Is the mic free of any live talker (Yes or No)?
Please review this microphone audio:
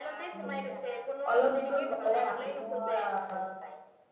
No